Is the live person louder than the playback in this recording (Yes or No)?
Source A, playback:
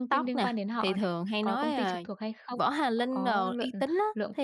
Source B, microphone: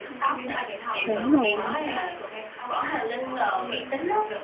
Yes